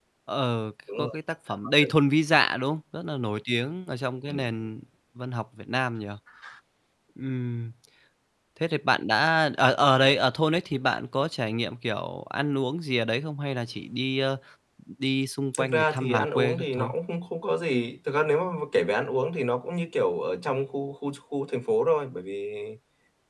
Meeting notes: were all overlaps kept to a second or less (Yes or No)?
No